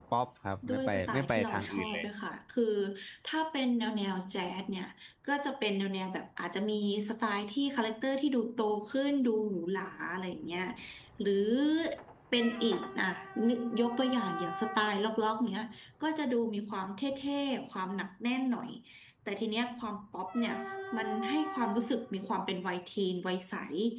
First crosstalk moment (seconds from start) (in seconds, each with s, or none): 0.7 s